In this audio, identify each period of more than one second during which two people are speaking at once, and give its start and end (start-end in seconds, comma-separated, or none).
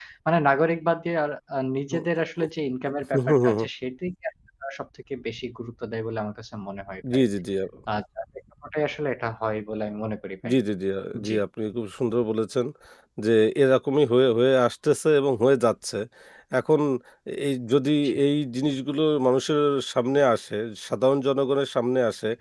none